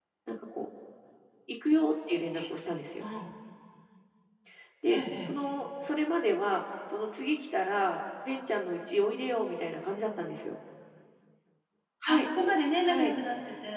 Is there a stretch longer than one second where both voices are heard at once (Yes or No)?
No